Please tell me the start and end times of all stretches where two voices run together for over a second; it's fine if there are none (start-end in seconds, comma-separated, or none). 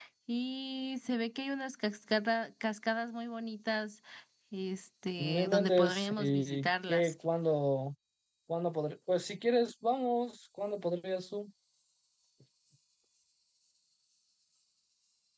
5.2-7.1